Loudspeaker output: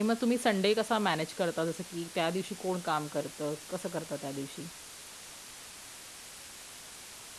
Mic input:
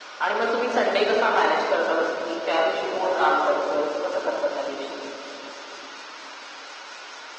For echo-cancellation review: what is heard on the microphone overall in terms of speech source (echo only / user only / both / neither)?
echo only